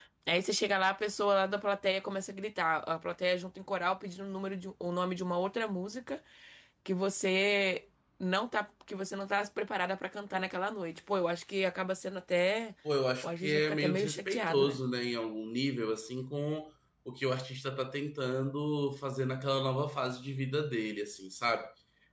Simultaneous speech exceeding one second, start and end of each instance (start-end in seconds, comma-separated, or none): 13.2-14.8